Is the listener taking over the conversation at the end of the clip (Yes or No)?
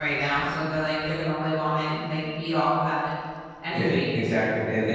Yes